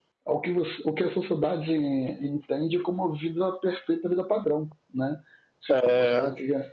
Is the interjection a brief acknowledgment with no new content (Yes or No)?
Yes